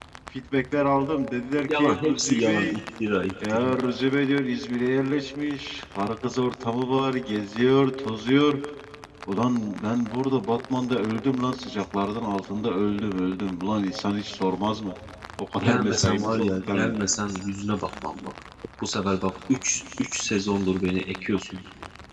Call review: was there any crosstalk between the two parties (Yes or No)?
Yes